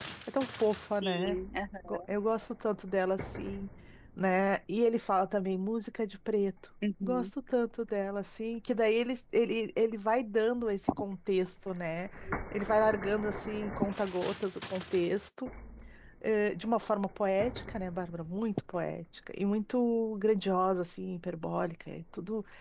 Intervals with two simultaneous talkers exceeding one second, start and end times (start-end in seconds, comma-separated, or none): none